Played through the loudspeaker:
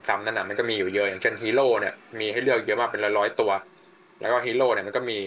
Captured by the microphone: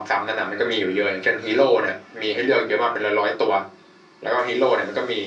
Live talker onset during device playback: none

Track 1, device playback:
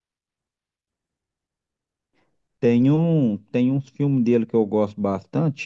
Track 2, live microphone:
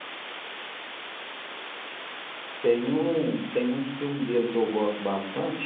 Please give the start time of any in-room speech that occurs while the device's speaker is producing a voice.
none

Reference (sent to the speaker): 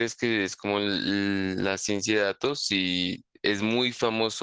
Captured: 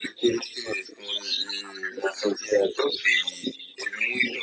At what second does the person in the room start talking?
none

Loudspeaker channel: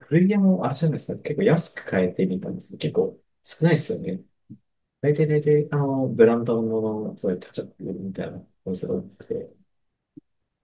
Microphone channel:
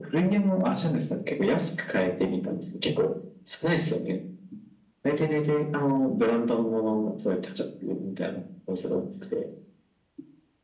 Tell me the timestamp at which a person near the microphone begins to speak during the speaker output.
none

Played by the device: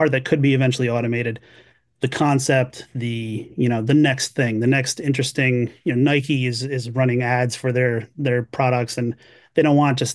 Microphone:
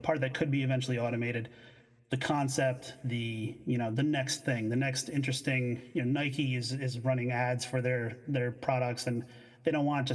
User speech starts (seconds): none

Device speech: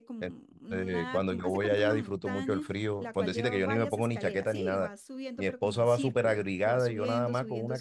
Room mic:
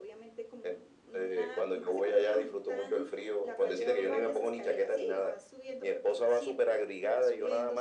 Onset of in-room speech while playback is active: none

